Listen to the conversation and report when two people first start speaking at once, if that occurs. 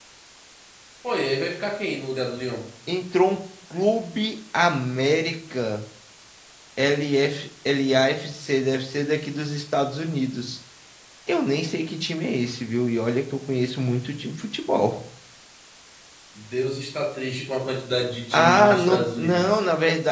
18.3 s

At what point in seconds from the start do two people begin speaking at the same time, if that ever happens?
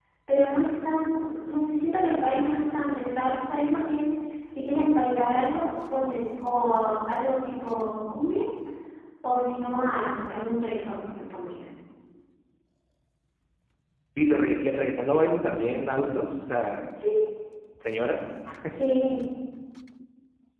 none

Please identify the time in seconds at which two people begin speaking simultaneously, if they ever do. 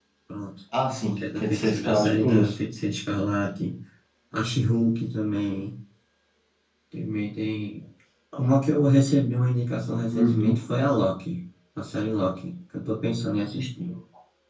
1.2 s

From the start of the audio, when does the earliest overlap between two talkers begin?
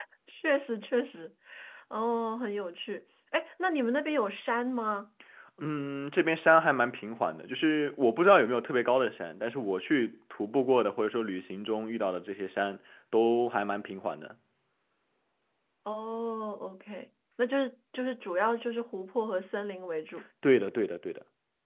none

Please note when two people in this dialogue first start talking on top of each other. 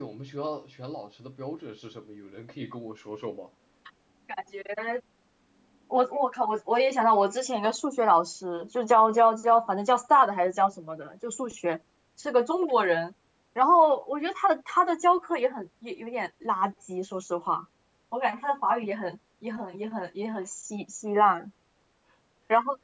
none

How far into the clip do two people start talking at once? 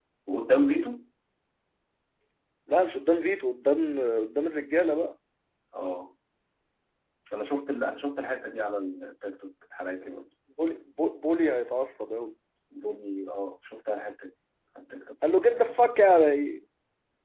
none

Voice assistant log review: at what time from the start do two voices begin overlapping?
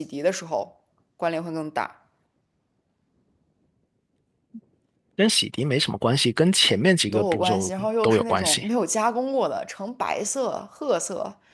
7.1 s

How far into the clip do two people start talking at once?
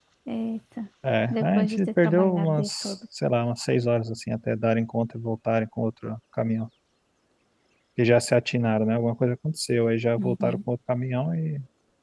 1.3 s

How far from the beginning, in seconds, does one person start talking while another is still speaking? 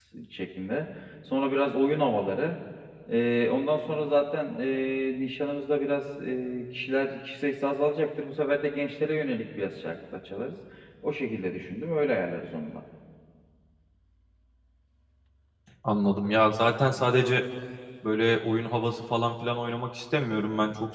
none

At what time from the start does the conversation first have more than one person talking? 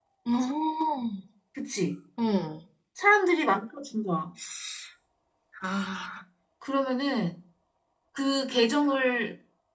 none

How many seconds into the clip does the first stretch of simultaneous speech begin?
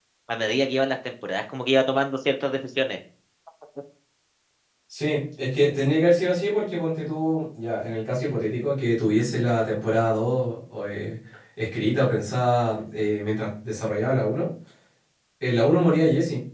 none

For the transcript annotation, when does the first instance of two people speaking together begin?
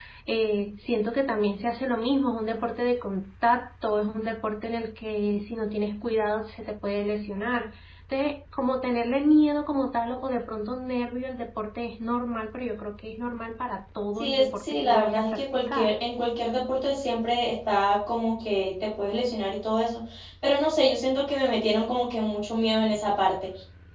14.1 s

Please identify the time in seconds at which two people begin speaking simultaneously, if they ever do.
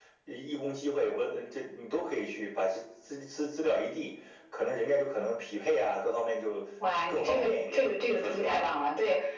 7.1 s

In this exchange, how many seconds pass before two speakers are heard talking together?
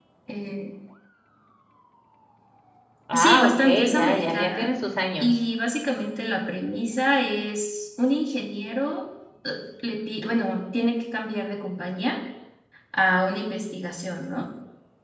3.1 s

